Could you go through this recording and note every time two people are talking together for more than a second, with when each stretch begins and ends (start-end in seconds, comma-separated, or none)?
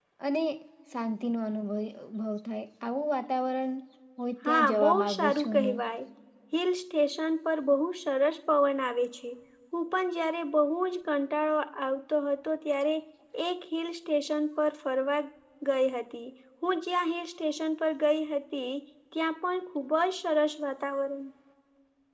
4.5-5.8